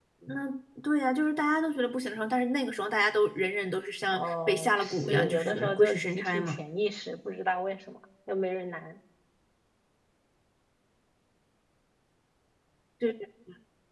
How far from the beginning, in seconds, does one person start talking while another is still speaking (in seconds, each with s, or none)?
4.1 s